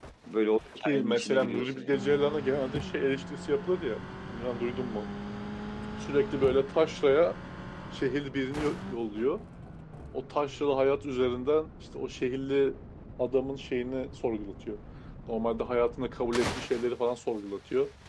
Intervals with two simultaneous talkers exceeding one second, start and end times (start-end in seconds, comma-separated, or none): 0.8-2.1